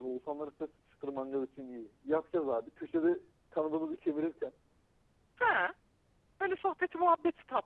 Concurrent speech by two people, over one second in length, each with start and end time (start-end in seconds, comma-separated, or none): none